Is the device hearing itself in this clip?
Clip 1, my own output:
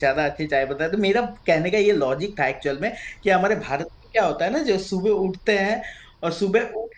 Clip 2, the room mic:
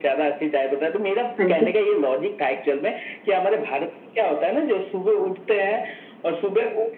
Yes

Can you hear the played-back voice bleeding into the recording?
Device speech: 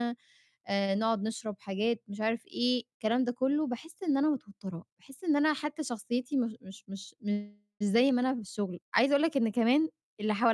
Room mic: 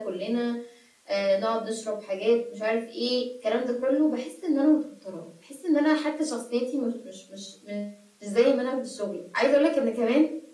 Yes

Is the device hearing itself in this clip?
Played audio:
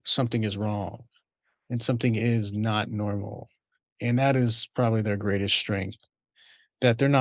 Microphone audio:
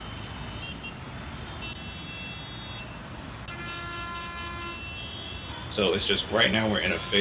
No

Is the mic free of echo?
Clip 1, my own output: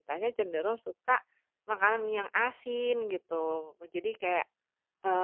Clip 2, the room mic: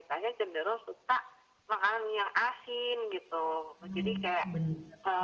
No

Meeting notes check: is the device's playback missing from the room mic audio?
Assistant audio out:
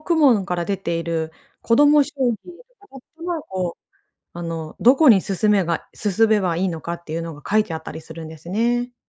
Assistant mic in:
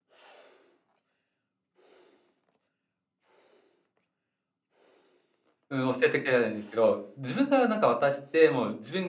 Yes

